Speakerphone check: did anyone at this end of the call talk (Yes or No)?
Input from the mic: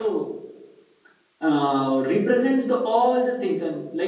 Yes